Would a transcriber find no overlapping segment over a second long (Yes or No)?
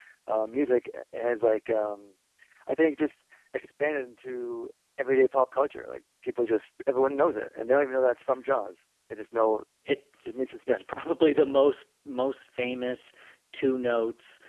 Yes